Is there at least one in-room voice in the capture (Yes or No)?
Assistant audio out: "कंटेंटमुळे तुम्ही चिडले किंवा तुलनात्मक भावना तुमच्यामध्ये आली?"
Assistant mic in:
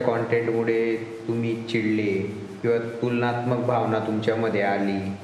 No